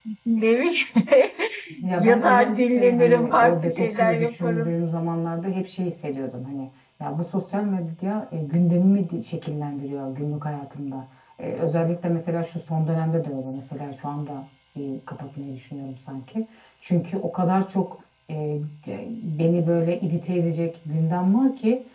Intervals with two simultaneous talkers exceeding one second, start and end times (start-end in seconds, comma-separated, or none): 2.0-4.7